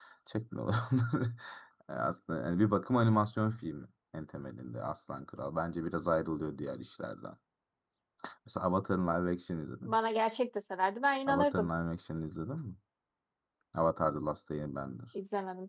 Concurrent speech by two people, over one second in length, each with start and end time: none

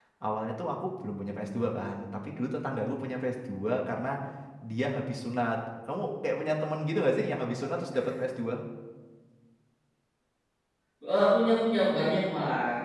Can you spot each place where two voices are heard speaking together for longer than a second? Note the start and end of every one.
none

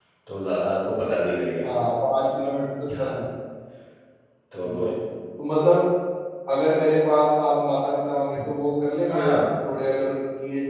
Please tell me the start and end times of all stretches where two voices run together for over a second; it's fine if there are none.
none

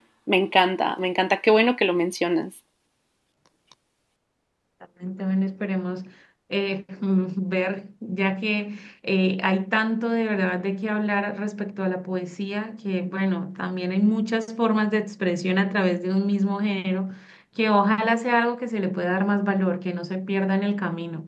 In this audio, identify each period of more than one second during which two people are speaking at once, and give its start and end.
none

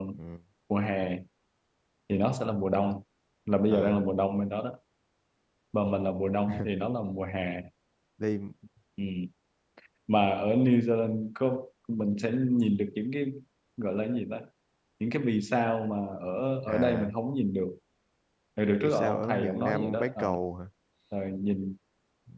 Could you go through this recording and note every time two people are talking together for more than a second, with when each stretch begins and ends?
18.8-20.2

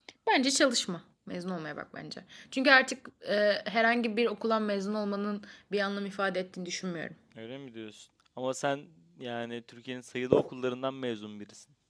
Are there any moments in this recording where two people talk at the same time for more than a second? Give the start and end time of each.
none

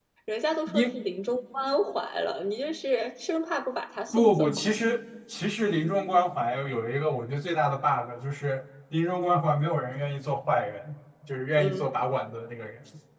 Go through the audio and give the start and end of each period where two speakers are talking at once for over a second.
none

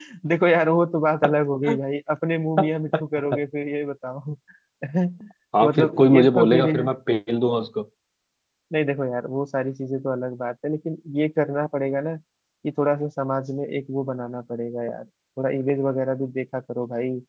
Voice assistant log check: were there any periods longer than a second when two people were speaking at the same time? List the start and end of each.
5.6-6.9

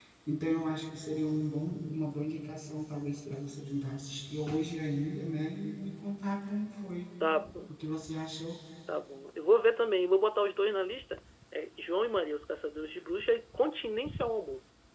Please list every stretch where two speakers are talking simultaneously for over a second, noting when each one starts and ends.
none

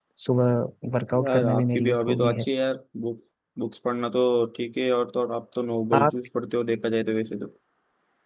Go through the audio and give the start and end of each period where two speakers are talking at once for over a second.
1.2-2.4

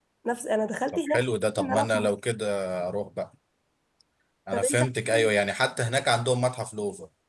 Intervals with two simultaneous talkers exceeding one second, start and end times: 0.9-2.1

